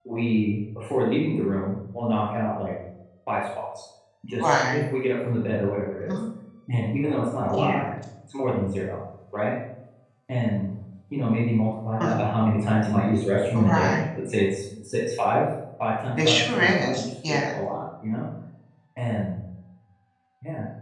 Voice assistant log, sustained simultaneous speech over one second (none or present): present